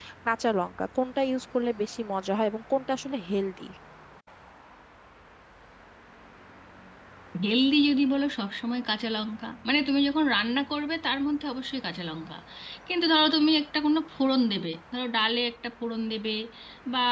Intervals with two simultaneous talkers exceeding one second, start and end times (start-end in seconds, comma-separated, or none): none